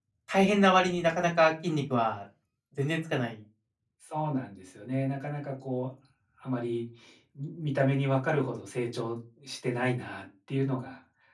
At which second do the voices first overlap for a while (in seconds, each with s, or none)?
none